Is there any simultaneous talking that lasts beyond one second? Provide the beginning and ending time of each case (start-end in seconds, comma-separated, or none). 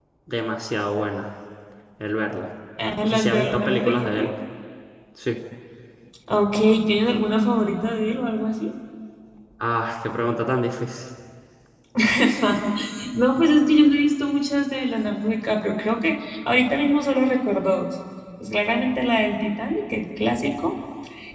3.0-4.3